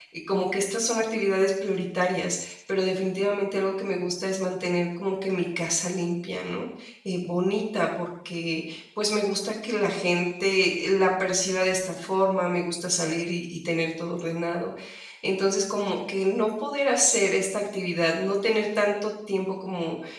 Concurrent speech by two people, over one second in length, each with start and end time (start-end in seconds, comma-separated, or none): none